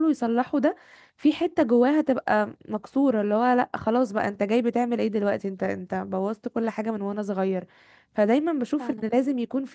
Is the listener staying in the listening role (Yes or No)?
Yes